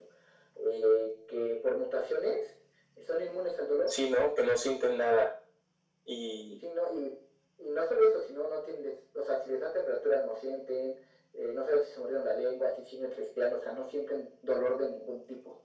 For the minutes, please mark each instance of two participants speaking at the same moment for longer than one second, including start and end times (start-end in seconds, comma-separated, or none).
none